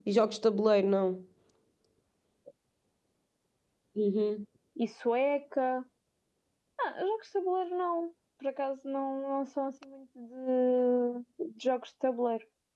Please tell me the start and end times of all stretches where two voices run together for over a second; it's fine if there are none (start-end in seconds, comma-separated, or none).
none